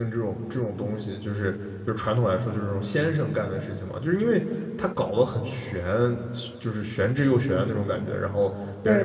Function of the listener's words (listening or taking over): listening